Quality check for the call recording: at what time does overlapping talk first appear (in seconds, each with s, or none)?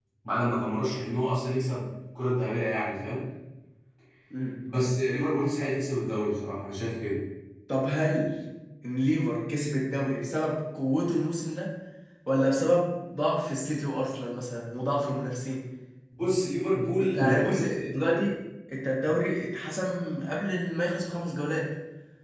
17.0 s